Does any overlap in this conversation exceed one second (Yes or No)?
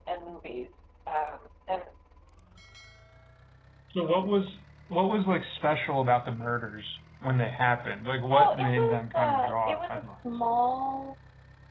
Yes